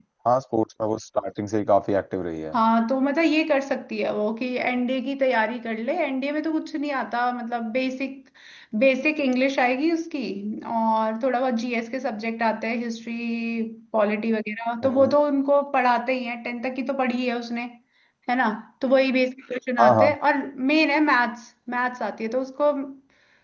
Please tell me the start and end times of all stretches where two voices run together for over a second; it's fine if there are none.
none

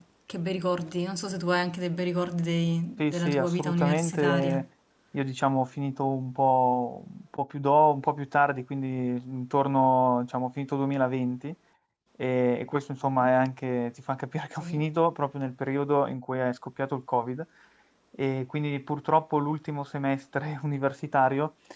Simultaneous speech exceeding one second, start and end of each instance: 3.0-4.6

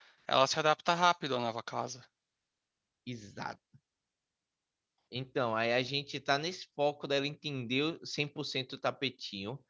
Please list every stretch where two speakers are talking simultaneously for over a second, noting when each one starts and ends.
none

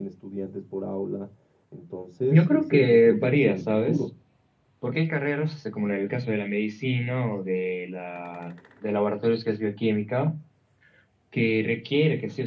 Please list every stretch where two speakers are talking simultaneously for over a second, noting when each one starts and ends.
2.3-4.0

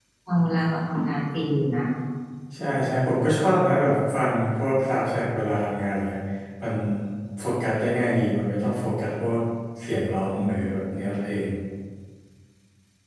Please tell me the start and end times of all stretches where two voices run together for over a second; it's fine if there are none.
none

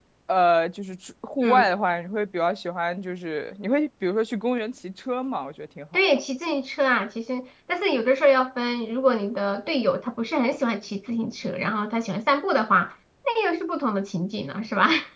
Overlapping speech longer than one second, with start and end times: none

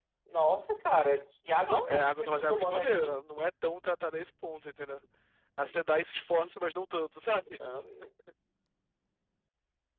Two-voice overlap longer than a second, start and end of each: 1.7-3.1

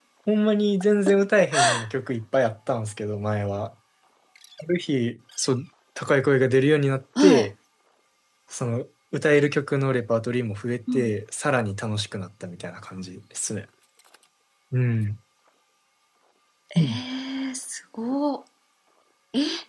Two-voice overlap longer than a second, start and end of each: none

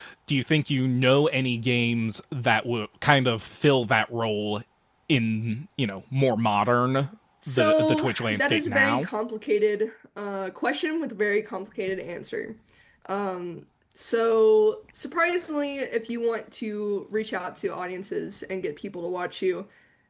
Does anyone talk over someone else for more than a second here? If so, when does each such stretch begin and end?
7.5-9.1

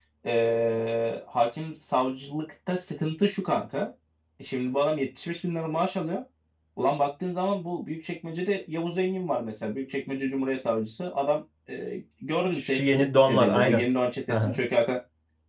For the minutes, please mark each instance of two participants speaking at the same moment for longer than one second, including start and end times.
12.6-13.8

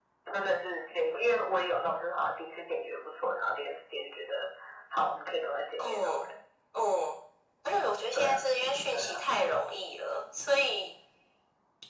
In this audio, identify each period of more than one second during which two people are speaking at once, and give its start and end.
none

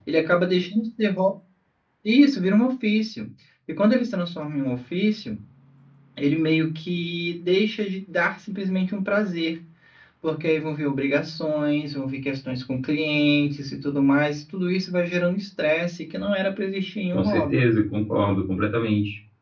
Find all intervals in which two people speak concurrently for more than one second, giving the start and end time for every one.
none

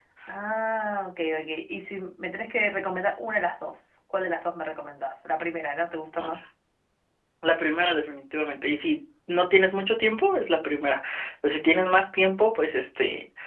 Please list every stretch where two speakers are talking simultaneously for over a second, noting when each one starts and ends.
none

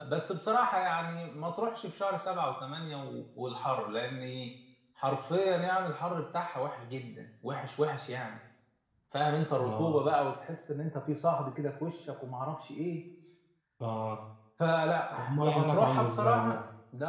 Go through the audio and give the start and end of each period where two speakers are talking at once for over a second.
15.2-16.6

